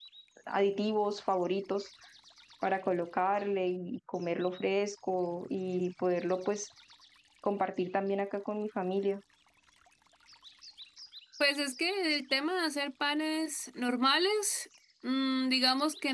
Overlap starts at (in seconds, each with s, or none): none